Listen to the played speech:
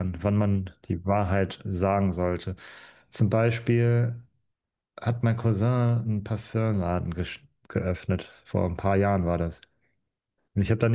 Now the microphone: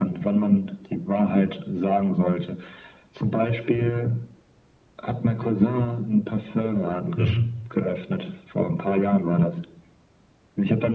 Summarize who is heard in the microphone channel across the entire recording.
both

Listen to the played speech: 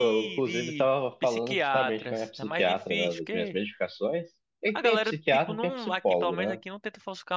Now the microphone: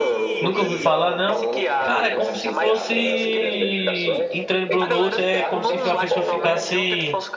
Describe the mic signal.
both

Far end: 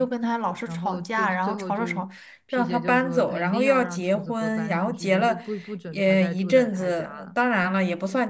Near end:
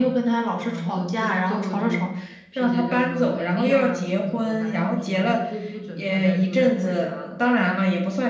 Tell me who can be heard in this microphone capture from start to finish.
echo only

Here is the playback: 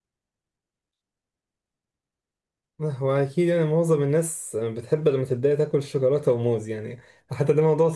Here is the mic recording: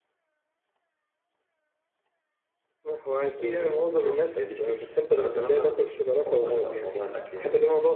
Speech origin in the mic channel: both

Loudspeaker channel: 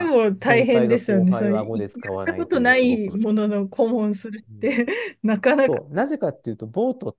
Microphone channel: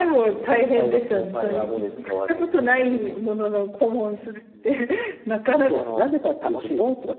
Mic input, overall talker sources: both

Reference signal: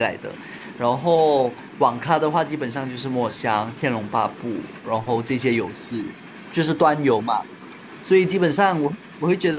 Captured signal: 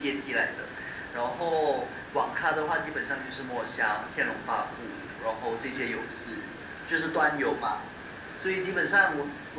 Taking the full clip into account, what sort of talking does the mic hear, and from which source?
echo only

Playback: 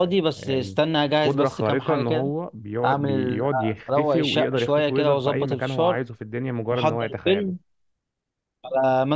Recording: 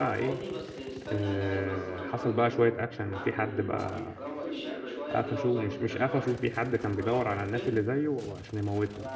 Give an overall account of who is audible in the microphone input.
both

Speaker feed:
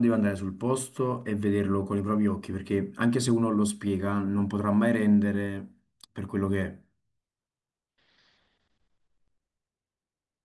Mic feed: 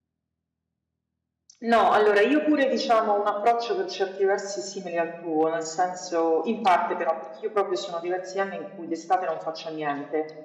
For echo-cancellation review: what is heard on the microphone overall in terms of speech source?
user only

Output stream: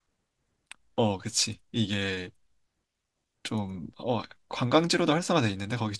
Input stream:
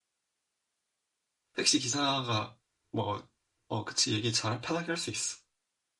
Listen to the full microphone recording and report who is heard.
user only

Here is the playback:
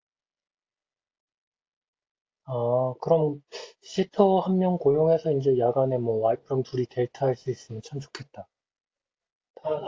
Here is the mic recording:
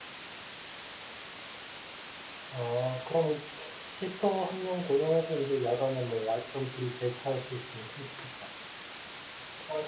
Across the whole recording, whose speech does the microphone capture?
echo only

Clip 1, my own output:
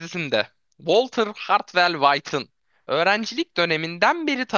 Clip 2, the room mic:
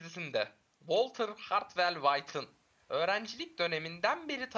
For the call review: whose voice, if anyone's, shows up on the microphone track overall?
echo only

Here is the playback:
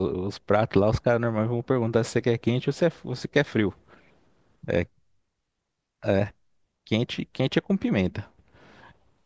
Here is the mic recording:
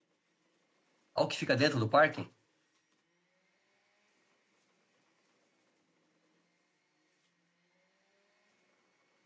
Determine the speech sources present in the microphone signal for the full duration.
user only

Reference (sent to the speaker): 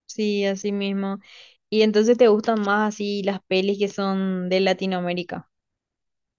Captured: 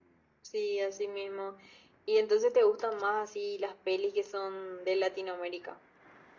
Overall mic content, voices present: echo only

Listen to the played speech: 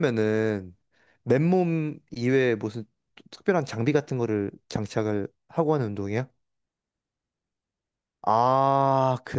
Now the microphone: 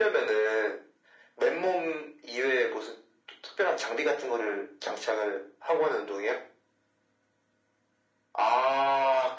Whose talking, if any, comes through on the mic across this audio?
echo only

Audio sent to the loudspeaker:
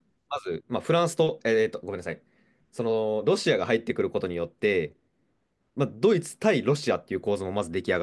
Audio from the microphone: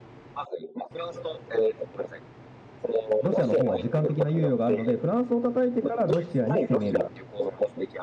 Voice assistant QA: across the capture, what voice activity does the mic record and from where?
both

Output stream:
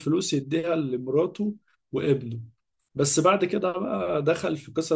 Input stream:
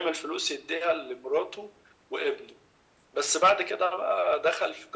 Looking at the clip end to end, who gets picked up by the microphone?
echo only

